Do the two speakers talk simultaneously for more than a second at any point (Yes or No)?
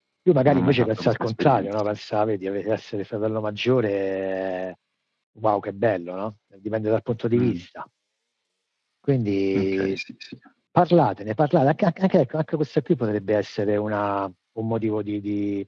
Yes